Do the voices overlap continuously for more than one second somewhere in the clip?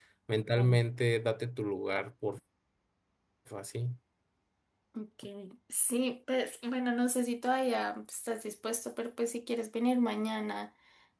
No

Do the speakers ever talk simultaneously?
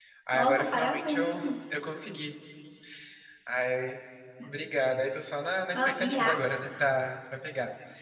Yes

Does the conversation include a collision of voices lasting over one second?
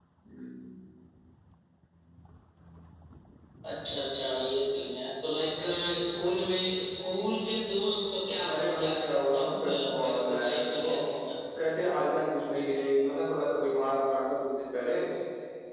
Yes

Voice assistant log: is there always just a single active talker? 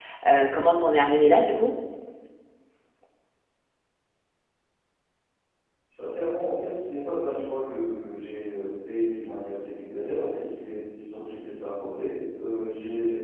Yes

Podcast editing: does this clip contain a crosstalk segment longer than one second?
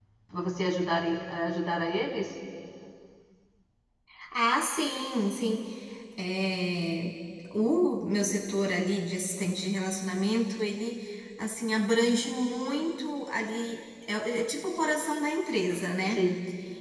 No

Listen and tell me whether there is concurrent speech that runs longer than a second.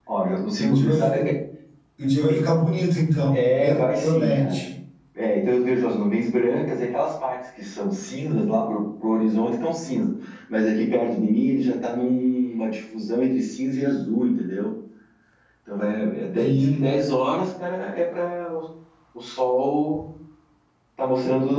Yes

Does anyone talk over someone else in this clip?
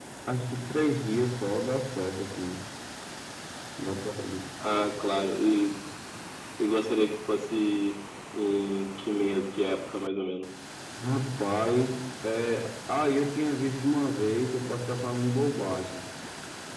No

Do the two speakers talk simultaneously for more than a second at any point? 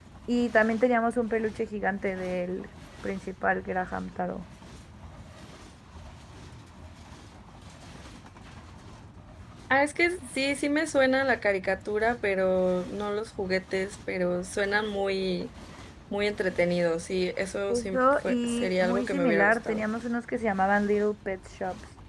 Yes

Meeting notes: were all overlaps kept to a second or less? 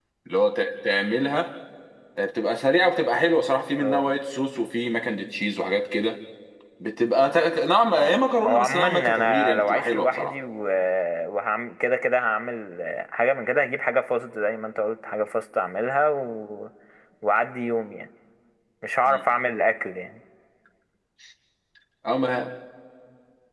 No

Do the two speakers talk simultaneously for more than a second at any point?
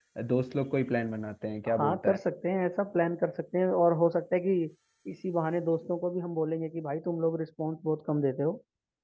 No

